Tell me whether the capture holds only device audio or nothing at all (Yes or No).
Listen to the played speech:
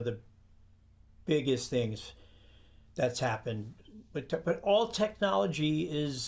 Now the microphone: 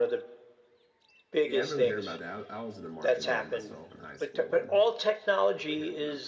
No